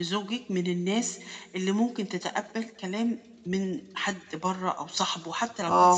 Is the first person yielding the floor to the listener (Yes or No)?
Yes